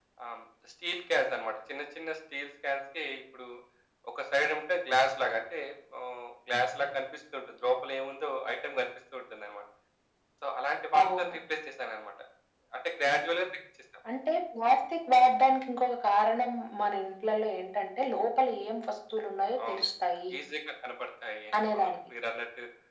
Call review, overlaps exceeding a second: none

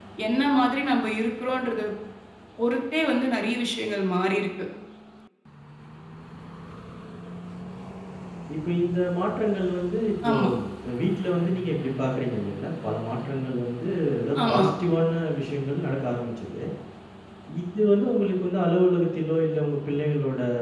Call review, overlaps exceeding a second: none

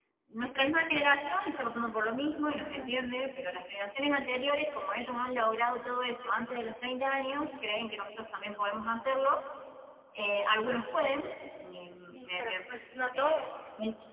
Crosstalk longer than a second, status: none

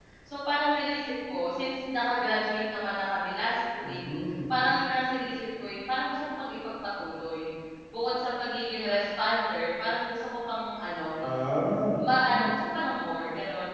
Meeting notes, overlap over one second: none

